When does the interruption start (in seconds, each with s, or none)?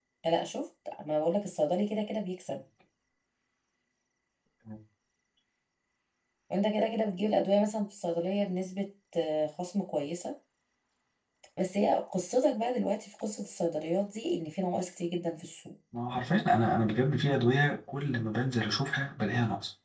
none